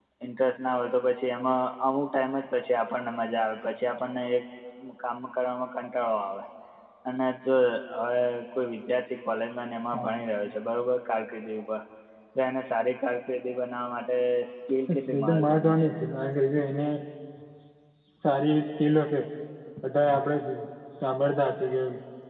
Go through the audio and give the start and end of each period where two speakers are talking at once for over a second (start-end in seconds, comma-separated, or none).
15.0-16.3